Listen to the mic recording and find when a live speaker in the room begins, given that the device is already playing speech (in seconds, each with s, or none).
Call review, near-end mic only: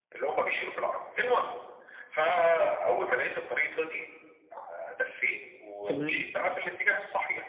5.8 s